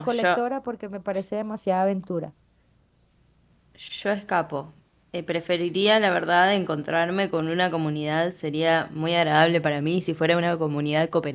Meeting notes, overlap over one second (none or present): none